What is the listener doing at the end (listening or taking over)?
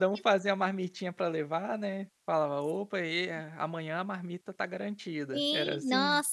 taking over